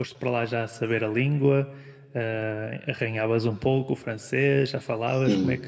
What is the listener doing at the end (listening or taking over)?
taking over